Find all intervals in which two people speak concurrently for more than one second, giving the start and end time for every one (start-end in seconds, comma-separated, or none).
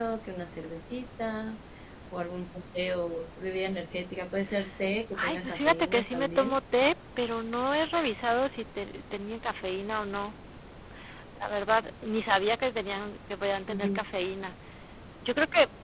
5.1-6.6